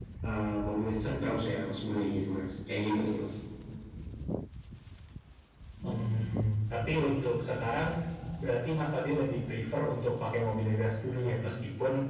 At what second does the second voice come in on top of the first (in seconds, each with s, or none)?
none